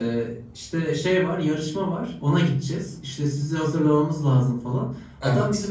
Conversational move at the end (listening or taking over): listening